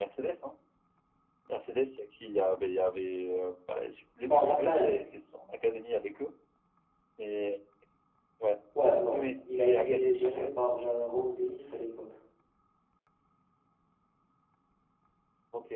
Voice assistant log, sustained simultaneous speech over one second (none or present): present